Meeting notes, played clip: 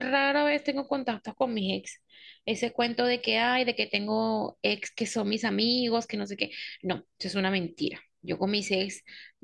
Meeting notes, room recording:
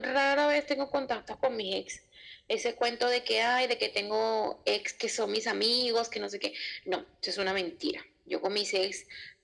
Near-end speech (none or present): none